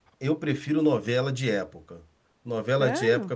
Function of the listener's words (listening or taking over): listening